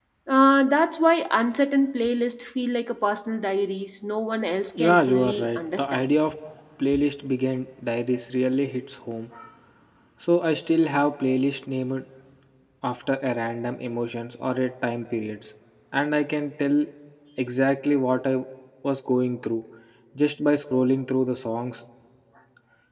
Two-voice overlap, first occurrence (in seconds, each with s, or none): 4.7 s